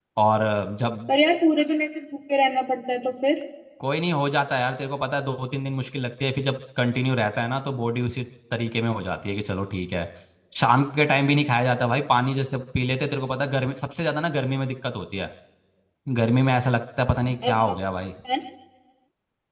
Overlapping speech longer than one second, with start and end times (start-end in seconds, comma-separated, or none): none